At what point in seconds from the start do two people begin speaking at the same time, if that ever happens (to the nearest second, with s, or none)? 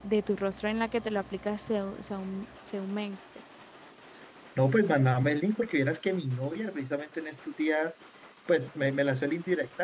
none